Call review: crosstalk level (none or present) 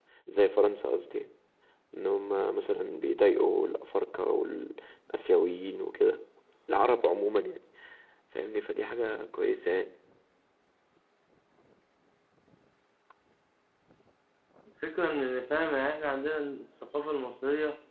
none